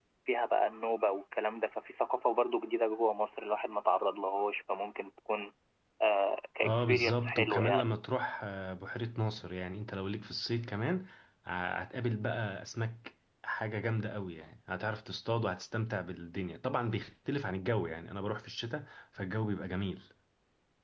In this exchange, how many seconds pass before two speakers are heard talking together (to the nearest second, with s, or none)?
7 s